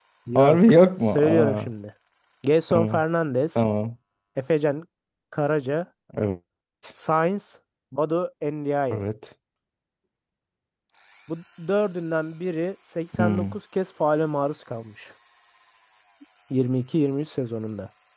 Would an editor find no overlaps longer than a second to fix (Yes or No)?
No